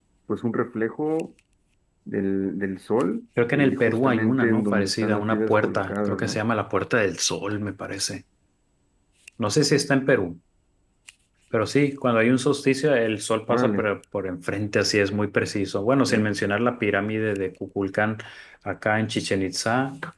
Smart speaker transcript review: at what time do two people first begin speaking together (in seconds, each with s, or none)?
3.5 s